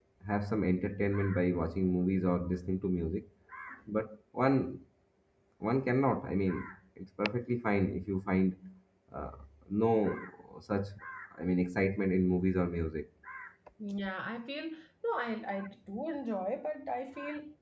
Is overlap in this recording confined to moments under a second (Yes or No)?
Yes